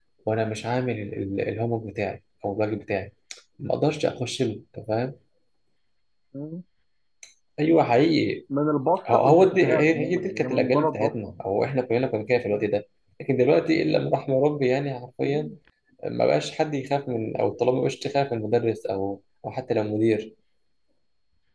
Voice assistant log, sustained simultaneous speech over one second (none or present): present